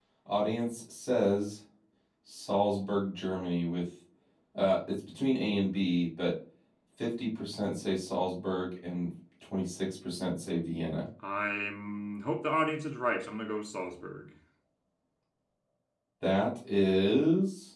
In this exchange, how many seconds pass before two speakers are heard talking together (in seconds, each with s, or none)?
none